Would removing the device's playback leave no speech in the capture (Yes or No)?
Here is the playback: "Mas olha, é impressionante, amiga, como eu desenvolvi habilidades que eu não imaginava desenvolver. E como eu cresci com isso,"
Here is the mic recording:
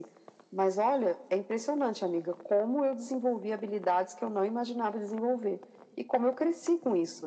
Yes